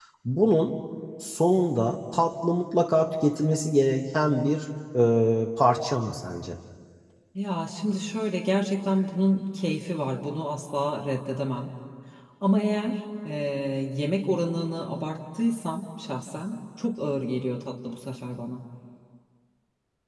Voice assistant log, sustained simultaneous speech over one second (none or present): none